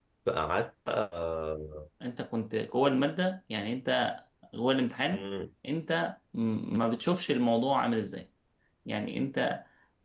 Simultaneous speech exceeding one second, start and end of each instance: none

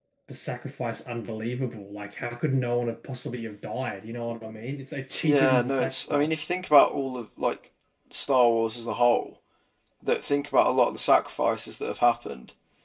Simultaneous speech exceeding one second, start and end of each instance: 5.2-6.5

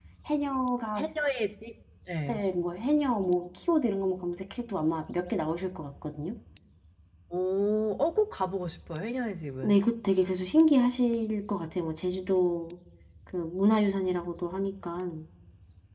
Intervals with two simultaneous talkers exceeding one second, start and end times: none

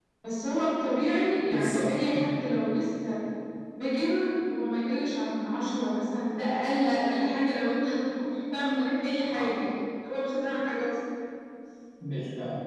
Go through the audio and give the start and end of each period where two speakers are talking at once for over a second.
1.5-2.7

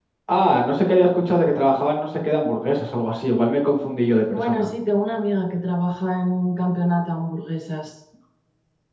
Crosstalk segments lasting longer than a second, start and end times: none

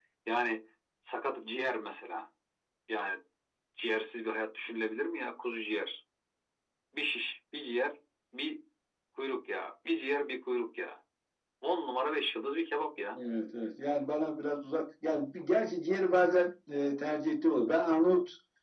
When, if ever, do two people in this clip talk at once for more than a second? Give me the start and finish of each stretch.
none

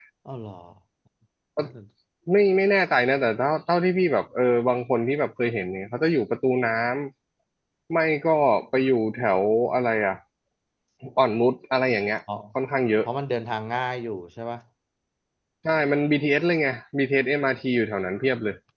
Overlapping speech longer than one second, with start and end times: none

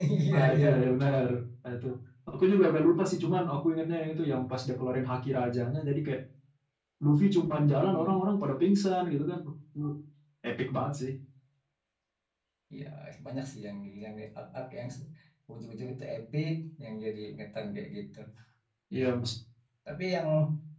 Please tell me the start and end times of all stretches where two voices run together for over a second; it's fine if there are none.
none

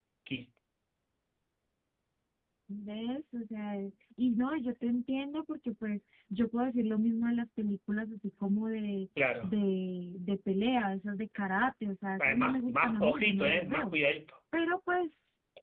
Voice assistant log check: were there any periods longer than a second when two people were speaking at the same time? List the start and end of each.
12.2-13.9

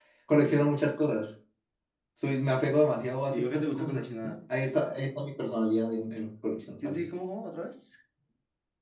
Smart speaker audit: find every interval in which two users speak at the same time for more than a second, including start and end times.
3.2-4.4

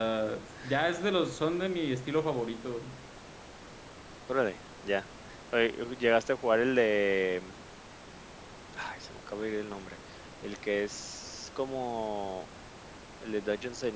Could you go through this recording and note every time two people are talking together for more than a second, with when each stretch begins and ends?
none

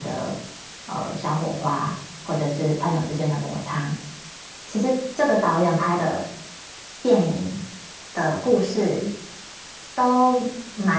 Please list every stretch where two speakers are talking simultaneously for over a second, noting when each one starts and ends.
none

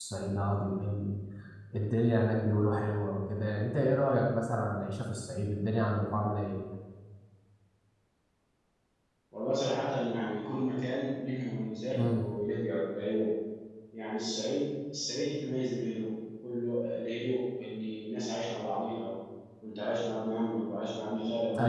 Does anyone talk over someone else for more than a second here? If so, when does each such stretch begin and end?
none

